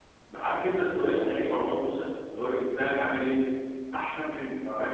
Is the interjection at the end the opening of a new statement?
No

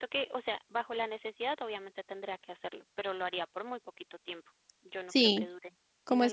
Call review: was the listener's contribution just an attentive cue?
No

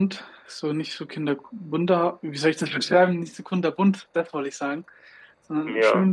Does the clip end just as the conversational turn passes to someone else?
No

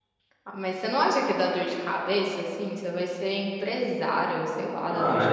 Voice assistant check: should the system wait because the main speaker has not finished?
No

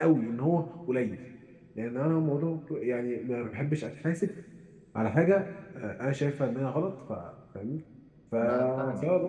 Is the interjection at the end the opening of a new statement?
No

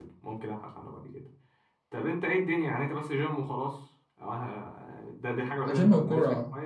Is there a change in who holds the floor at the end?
Yes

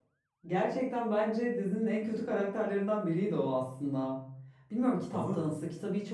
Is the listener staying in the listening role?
Yes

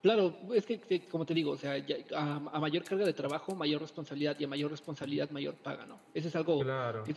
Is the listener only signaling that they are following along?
Yes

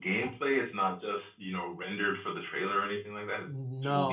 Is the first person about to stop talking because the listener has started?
Yes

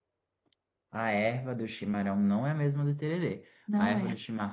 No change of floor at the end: Yes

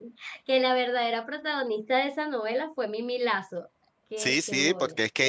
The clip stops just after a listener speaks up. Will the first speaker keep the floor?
No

